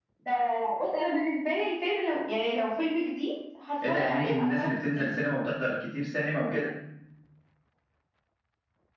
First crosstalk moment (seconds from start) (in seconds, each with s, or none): 3.8 s